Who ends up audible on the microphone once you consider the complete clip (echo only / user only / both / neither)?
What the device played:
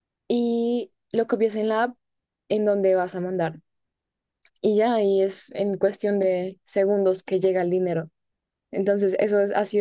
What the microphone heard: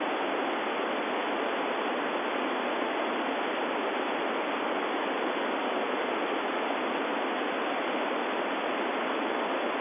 neither